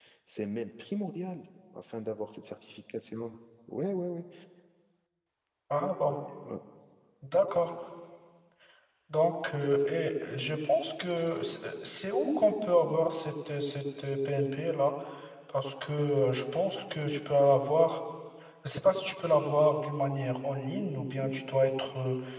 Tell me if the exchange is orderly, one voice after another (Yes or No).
Yes